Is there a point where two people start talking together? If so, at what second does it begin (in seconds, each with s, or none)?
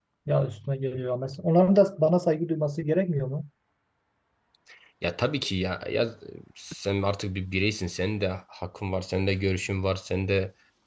none